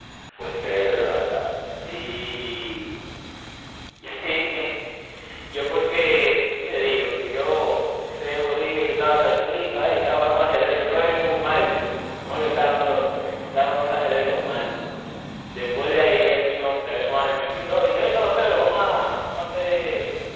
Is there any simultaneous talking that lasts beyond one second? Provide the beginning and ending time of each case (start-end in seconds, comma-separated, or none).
none